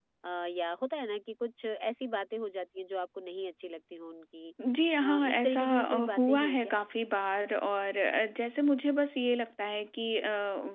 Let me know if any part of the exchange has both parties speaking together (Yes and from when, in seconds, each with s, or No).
Yes, from 5.0 s